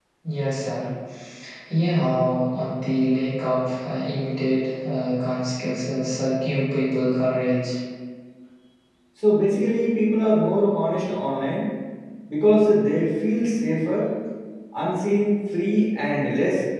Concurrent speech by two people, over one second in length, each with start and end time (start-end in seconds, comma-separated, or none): none